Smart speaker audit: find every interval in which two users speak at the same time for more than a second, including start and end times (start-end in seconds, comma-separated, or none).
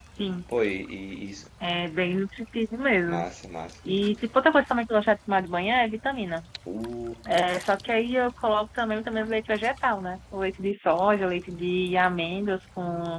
none